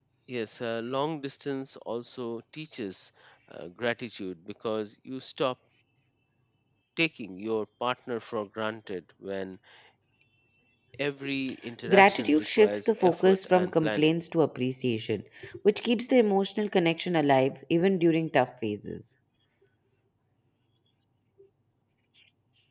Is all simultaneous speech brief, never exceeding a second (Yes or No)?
No